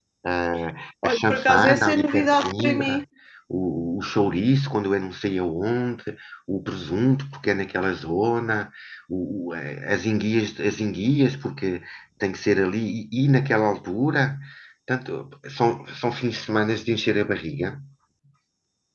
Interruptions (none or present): present